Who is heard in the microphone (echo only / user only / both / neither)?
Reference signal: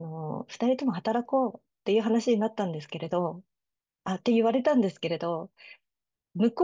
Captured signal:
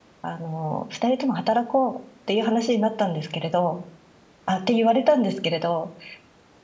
echo only